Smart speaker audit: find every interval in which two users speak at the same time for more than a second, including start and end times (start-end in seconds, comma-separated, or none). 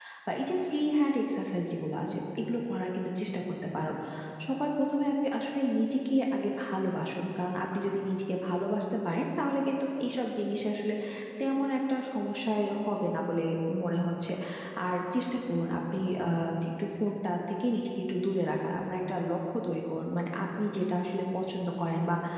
none